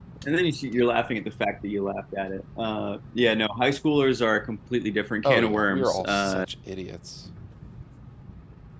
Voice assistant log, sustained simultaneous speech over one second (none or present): present